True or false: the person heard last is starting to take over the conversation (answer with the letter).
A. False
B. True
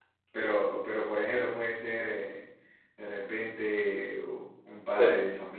A